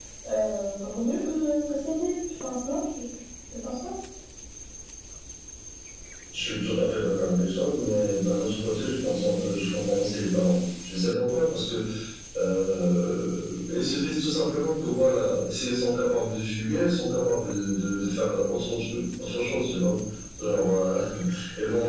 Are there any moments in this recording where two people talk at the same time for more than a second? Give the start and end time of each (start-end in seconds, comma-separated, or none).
none